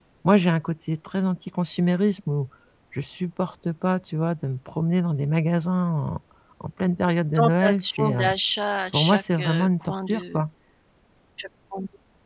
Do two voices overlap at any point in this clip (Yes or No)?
Yes